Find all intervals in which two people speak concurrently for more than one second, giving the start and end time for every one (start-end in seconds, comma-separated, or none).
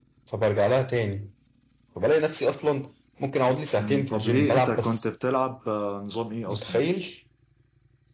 3.8-5.0